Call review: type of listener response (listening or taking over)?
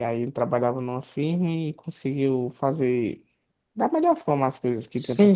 taking over